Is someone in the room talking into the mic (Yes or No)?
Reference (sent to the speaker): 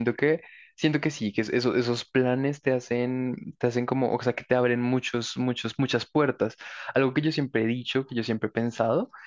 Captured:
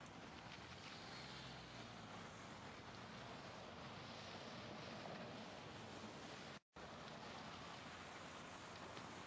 No